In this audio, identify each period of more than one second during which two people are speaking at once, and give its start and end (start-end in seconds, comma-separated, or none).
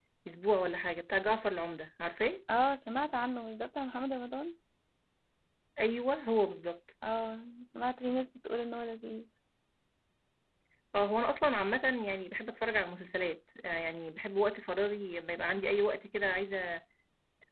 none